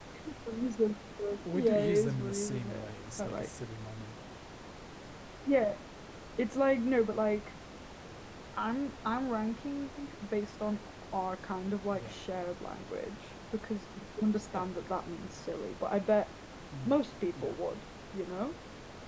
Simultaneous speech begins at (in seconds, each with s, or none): 1.4 s